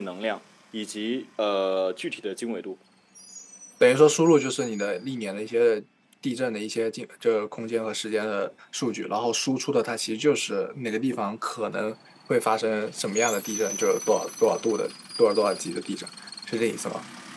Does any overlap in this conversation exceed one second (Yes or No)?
No